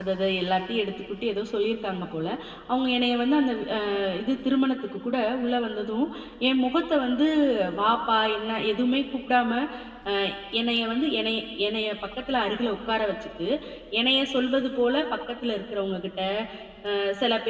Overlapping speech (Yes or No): No